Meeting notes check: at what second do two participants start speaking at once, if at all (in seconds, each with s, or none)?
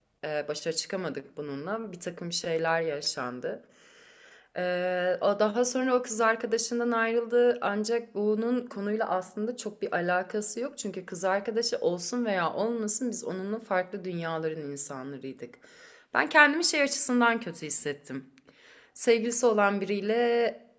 none